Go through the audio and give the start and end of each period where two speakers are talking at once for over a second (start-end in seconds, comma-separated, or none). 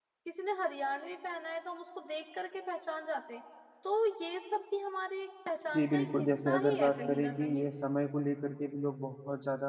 5.7-7.7